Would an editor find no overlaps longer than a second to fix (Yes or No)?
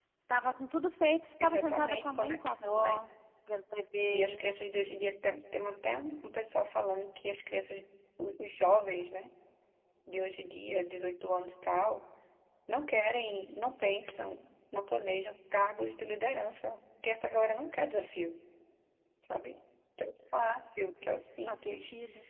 No